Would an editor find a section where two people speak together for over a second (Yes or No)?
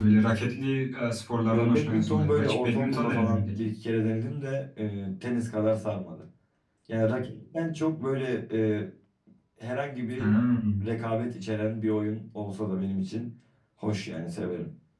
Yes